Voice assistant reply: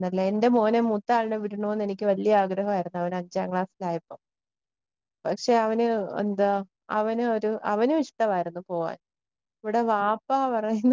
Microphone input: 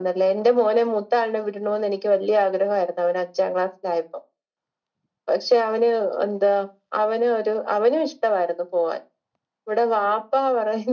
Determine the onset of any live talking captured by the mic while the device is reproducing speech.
none

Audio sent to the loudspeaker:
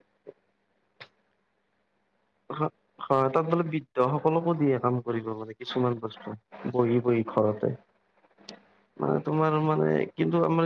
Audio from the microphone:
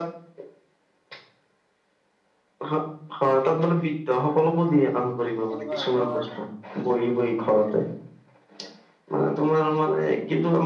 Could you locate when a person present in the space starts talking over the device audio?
6 s

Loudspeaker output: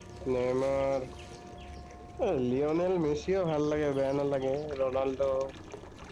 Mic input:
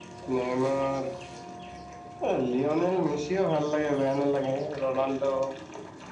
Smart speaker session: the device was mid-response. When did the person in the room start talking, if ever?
none

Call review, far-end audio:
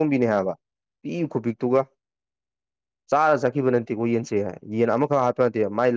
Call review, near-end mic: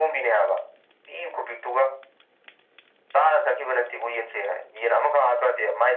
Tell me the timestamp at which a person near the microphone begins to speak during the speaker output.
none

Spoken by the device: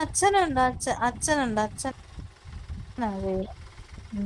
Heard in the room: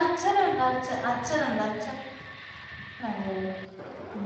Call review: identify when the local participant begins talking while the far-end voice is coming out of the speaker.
none

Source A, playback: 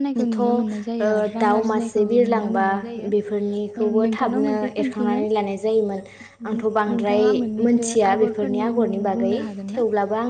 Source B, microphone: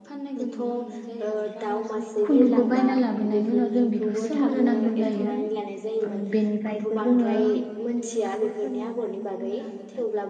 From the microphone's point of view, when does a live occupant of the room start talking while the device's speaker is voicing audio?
2 s

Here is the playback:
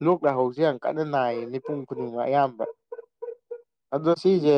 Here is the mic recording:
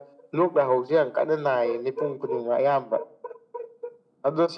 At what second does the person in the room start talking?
none

